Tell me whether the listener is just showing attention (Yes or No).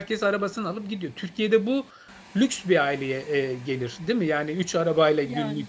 Yes